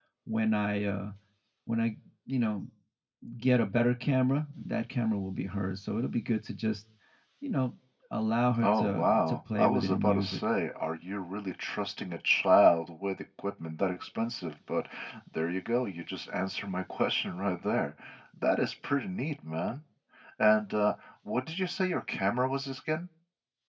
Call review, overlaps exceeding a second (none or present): present